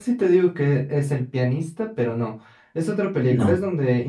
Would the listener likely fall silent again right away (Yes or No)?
Yes